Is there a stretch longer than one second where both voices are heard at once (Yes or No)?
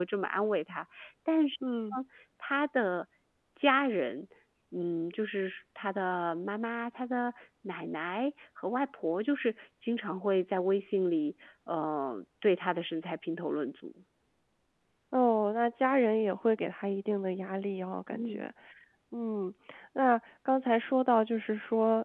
No